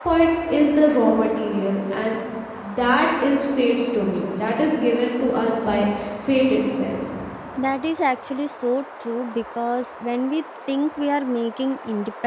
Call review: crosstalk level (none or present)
none